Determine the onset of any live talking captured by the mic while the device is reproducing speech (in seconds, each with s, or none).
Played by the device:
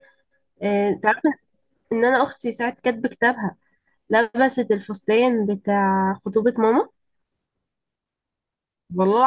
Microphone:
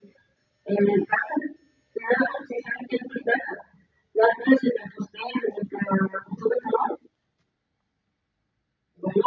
none